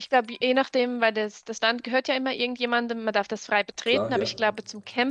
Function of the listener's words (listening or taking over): listening